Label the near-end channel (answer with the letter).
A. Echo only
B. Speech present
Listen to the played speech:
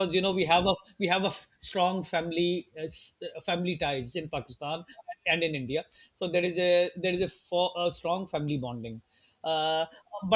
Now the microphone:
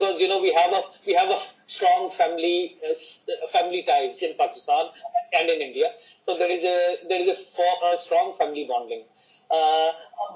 A